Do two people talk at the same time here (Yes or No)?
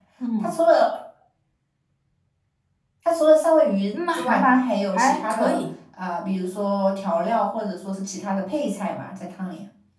Yes